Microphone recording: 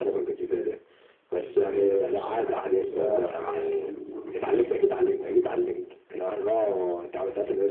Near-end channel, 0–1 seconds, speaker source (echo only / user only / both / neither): echo only